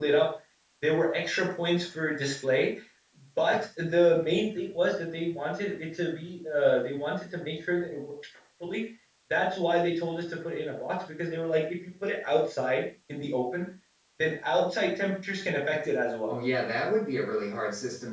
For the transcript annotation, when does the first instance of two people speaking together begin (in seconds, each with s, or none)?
none